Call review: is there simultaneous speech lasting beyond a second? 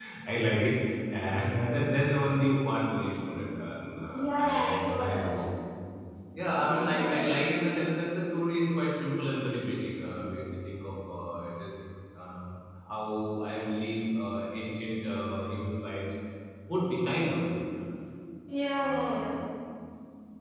Yes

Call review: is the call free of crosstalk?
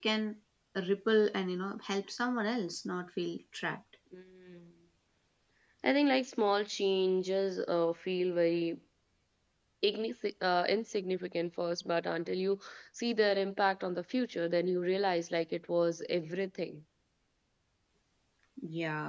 Yes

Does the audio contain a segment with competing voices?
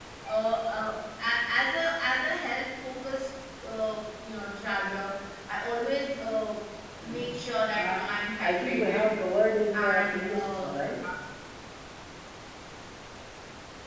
Yes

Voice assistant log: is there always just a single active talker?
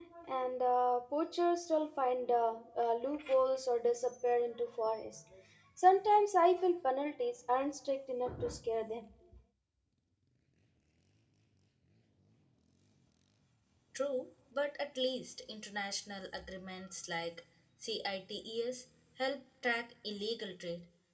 Yes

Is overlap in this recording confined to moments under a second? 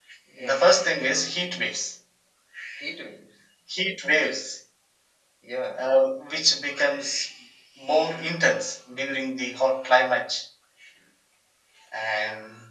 Yes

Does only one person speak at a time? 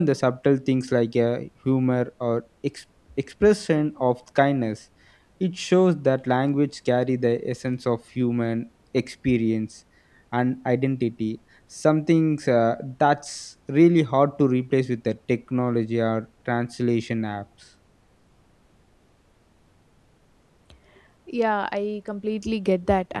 Yes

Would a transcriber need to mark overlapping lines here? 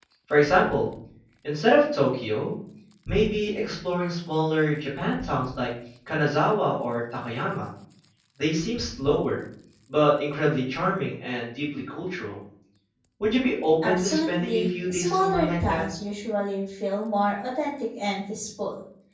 Yes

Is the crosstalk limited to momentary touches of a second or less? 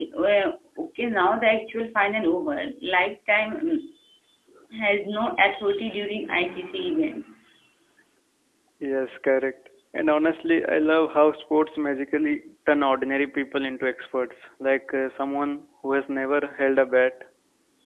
Yes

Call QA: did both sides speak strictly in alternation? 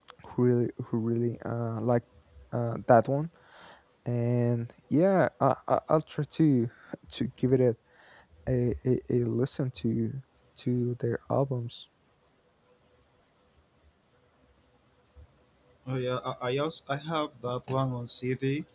Yes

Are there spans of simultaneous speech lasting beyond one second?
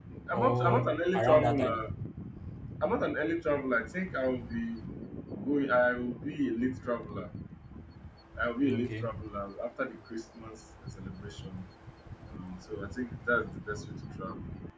Yes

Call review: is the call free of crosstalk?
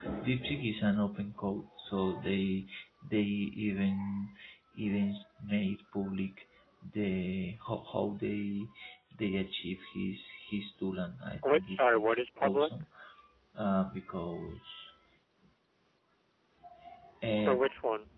No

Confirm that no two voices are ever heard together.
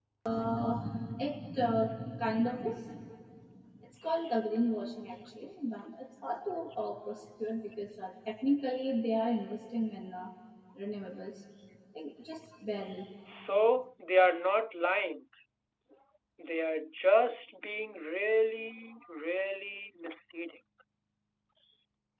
Yes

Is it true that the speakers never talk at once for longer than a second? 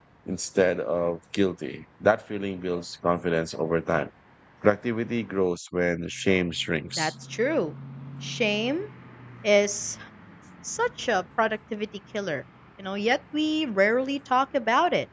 Yes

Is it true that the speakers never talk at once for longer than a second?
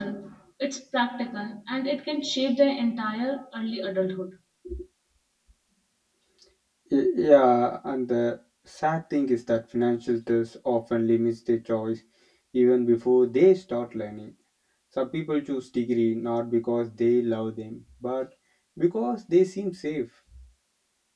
Yes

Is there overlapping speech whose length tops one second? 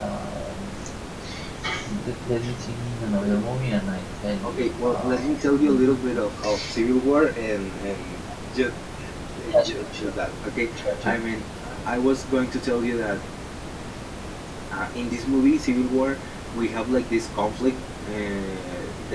Yes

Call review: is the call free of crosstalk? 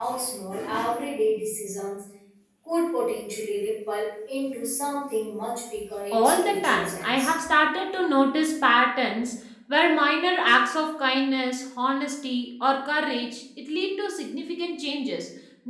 No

